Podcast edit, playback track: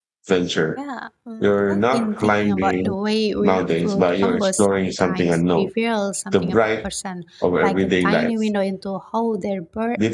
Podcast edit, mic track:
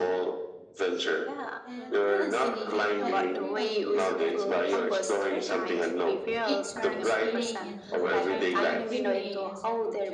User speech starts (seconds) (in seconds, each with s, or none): 1.6 s